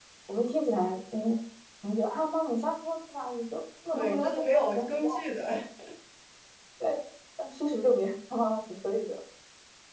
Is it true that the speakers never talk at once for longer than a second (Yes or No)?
No